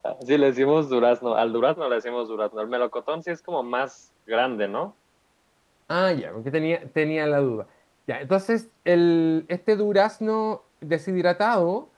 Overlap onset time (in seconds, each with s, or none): none